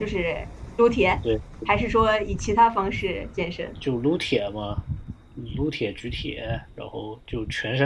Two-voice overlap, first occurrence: none

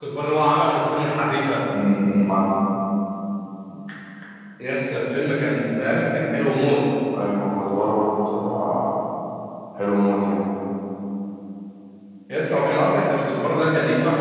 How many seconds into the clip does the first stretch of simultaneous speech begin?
none

